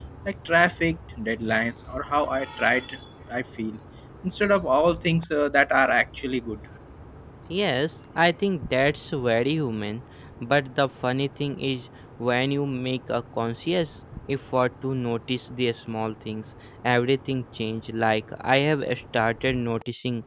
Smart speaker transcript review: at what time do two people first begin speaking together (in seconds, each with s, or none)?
none